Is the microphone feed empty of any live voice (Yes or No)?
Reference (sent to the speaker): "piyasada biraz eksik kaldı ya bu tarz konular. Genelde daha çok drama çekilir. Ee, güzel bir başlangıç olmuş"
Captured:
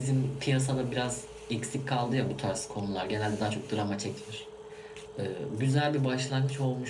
Yes